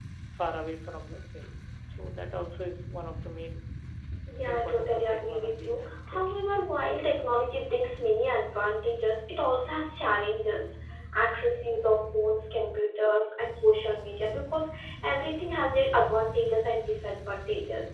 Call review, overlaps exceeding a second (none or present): present